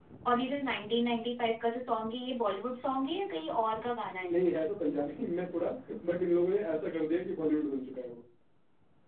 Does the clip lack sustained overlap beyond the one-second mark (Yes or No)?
Yes